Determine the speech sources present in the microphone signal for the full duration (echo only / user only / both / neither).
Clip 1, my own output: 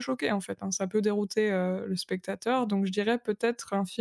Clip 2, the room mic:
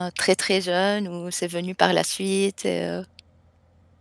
user only